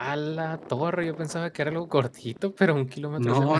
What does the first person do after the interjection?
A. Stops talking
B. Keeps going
A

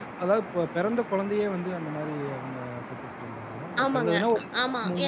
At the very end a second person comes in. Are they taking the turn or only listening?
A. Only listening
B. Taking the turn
B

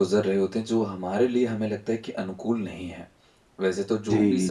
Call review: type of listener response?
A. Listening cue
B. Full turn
A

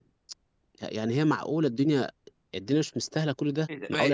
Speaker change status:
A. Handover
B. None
A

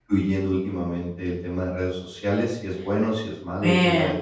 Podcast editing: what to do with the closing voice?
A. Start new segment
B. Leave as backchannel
B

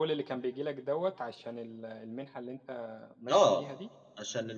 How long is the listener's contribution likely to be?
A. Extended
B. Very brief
A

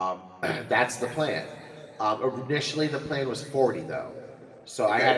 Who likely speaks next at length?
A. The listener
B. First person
B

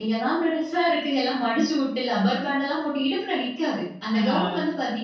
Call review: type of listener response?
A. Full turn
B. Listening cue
B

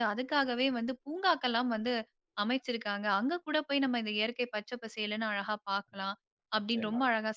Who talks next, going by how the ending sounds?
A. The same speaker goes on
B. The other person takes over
A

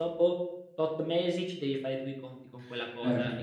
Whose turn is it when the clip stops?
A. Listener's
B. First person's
A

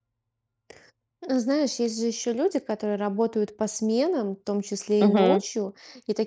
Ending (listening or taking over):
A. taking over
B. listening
B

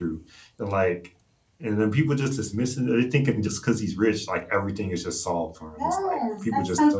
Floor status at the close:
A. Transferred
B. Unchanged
A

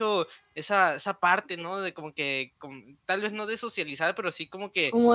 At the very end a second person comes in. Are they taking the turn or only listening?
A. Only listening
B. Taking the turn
B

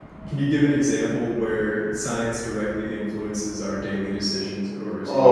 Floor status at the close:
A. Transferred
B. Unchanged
A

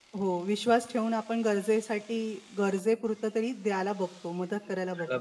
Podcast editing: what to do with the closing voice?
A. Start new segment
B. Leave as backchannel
A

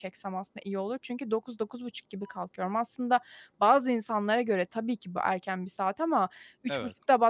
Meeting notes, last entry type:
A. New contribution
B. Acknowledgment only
B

